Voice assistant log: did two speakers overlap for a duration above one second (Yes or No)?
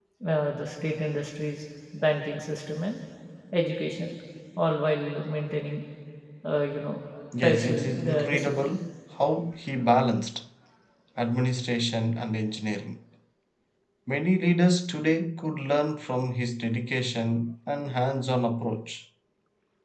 Yes